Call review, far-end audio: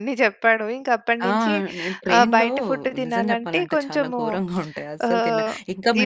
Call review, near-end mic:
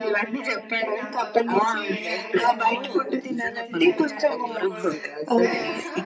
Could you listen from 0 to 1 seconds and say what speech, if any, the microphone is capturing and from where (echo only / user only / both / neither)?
both